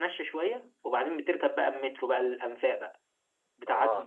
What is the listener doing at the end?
taking over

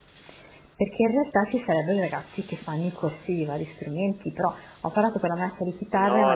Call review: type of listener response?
taking over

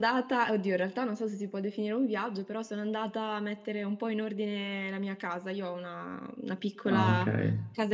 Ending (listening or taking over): listening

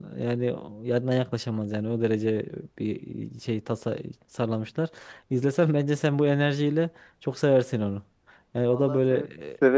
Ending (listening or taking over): taking over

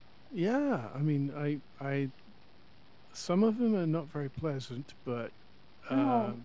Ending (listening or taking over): listening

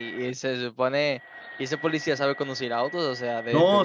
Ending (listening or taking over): taking over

